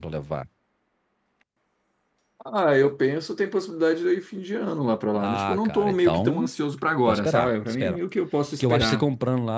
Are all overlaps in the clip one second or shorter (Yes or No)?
No